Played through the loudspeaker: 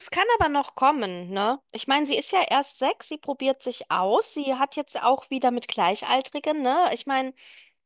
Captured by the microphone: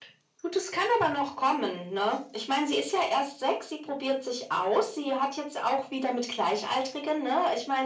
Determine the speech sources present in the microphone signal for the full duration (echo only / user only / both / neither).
echo only